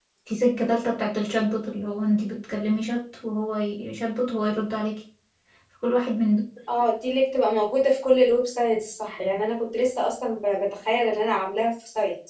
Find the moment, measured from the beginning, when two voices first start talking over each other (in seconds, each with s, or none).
none